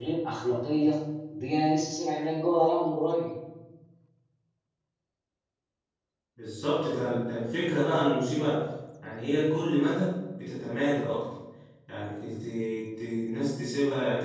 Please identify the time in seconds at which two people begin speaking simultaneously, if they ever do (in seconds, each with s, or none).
none